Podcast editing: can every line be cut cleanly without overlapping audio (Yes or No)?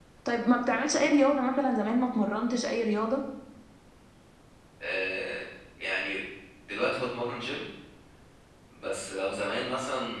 Yes